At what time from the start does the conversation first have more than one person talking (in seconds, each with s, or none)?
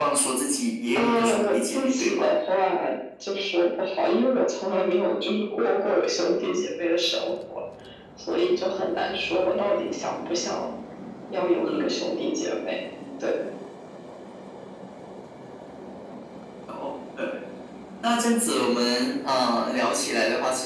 0.9 s